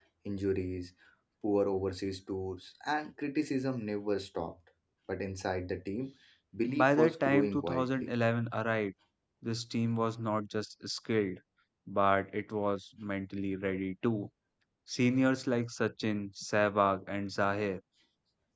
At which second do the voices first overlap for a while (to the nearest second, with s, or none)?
7 s